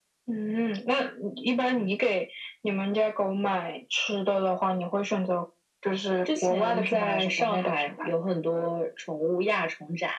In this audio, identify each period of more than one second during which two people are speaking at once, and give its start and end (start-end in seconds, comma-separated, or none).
6.2-8.1